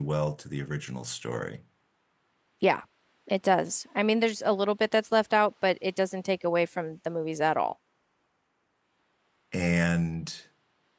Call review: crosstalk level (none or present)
none